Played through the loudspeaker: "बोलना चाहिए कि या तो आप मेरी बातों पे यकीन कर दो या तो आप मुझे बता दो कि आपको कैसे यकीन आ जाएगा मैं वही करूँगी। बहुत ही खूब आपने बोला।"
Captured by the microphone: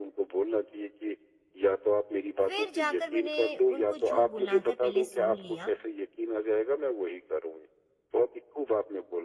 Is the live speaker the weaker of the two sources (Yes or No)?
Yes